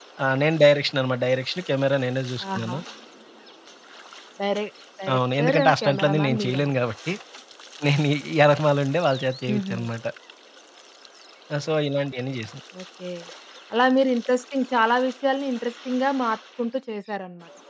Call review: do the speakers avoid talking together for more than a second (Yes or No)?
No